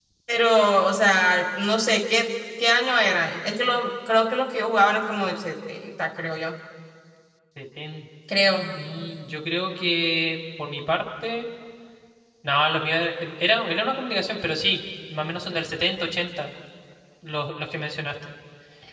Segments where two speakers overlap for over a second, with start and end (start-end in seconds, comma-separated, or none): none